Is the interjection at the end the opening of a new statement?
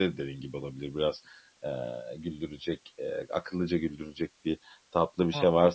No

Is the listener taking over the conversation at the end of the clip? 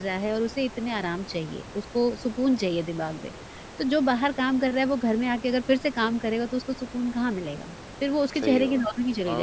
Yes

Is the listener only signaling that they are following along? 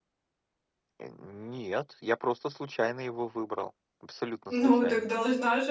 No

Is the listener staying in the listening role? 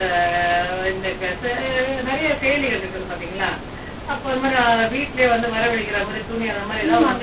No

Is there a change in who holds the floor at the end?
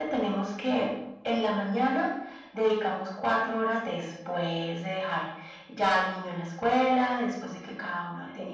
No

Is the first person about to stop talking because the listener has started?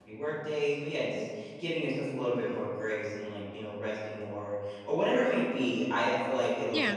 No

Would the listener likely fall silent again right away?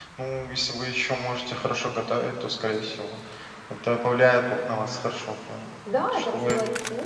No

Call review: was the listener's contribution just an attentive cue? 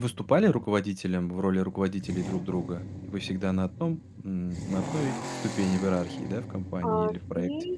No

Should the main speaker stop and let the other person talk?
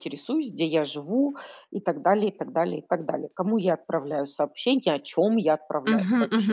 Yes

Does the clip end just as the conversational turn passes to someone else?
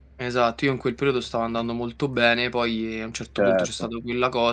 No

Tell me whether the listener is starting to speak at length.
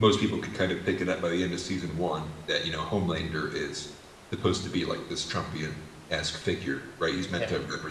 No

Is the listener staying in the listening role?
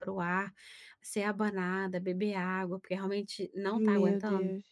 No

